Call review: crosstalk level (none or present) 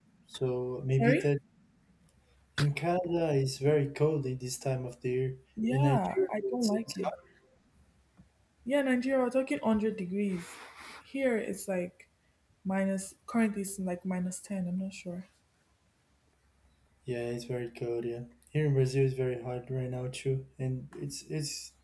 present